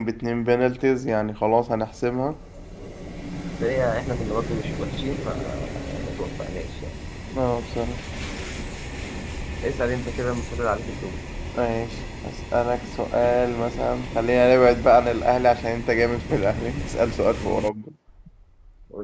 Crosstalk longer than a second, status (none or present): none